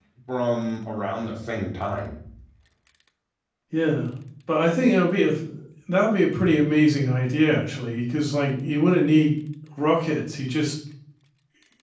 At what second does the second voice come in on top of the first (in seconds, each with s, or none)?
none